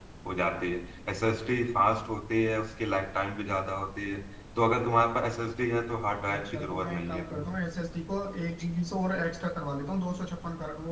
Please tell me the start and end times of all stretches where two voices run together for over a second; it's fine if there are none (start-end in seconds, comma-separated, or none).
6.3-7.6